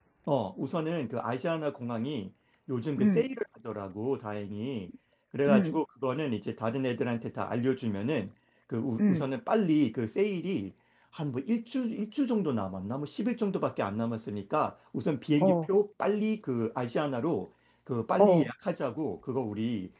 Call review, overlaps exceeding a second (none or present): none